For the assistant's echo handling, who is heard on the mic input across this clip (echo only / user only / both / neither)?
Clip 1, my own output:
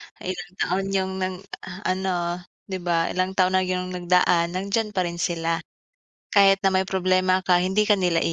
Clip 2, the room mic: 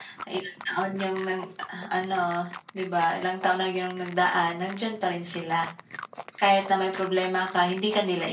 echo only